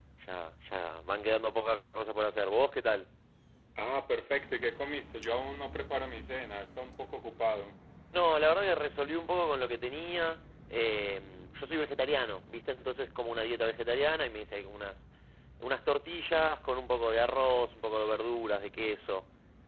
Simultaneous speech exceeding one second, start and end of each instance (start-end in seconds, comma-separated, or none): none